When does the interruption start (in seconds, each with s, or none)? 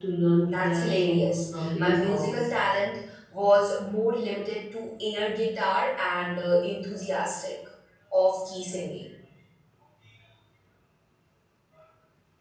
0.5 s